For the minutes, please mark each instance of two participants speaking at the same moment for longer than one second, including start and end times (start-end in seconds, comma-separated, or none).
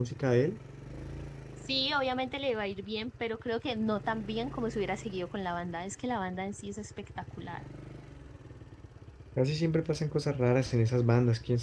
none